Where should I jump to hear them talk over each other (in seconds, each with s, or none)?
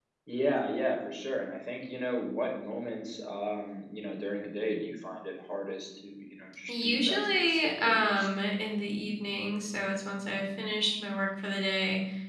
6.7 s